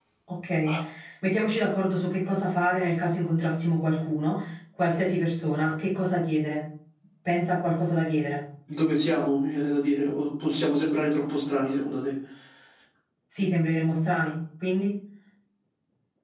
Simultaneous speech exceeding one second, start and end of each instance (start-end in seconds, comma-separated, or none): none